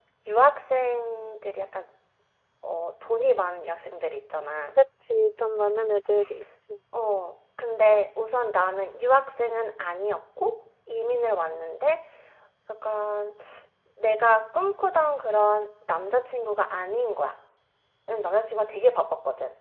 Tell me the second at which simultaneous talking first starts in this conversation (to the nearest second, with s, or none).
none